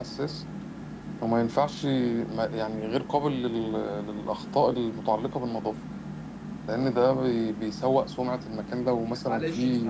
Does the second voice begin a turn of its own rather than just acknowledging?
Yes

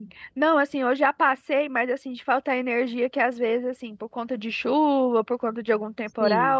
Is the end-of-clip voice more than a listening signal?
No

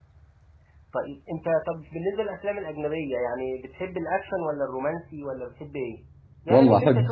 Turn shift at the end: Yes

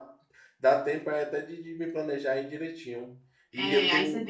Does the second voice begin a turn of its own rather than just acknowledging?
Yes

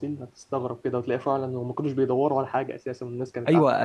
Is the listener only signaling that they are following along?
No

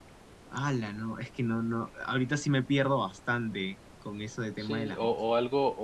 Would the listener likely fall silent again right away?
No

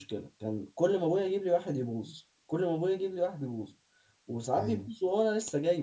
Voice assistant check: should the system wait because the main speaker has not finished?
Yes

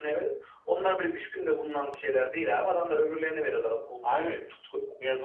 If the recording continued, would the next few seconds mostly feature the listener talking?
Yes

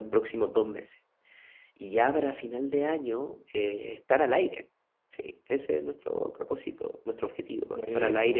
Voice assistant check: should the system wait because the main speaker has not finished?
Yes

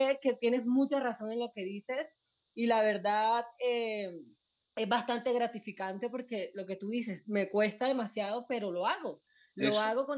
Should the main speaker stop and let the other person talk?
No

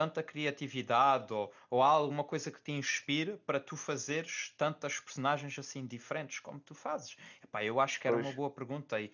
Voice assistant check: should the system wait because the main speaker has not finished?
Yes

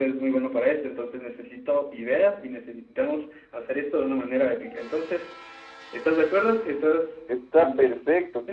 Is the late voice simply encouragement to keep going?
No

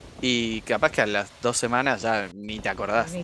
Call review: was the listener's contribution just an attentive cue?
No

